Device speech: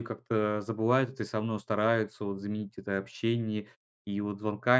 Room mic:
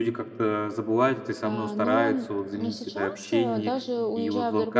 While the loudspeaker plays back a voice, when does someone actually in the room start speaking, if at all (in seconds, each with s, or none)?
1.4 s